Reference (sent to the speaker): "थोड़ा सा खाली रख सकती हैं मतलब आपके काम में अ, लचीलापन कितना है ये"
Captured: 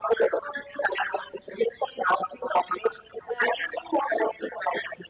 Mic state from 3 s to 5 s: echo only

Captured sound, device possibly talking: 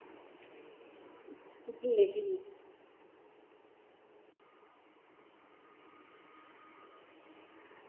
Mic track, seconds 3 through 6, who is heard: neither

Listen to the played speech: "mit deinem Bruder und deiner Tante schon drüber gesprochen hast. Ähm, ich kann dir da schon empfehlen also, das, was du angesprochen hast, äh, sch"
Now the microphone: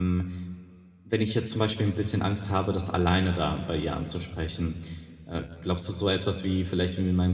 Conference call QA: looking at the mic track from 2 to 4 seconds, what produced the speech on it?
user only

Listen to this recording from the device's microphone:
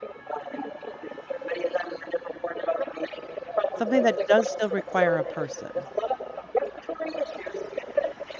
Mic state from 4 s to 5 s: both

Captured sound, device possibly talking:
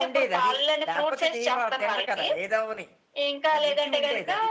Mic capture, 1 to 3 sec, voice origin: both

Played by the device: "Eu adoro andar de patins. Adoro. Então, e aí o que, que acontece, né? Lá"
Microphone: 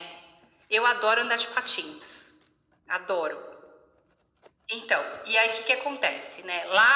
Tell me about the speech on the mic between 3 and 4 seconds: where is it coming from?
echo only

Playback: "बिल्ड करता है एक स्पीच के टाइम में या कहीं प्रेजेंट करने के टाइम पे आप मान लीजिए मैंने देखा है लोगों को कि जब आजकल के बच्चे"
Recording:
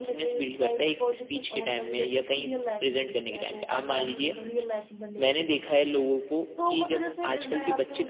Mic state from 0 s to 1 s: both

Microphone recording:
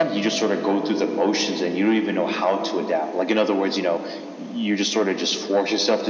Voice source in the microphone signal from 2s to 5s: echo only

